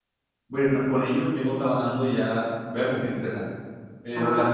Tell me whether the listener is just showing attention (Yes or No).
Yes